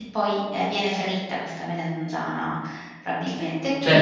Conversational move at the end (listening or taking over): taking over